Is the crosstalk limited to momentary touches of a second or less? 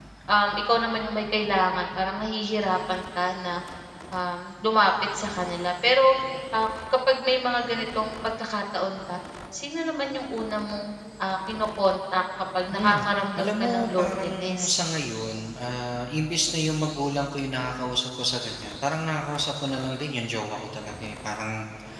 No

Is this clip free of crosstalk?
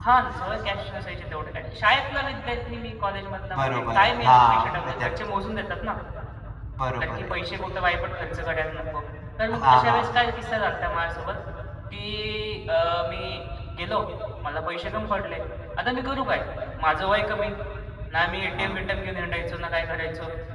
No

